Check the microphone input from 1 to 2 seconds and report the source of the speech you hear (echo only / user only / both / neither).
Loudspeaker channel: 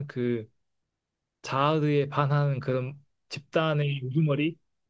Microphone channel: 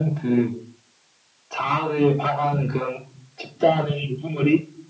echo only